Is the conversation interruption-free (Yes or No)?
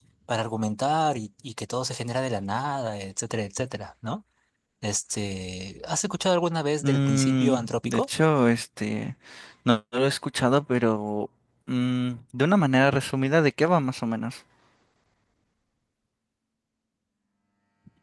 No